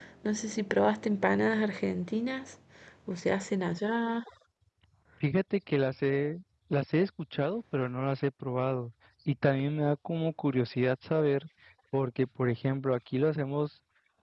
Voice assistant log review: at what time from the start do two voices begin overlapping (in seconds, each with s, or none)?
none